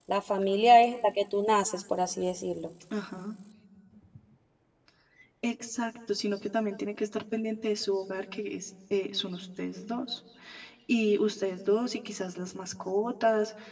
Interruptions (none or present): none